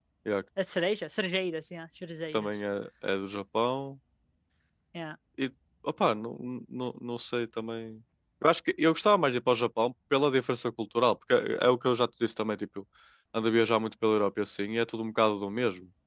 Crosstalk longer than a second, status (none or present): none